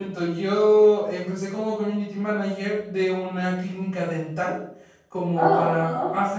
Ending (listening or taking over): listening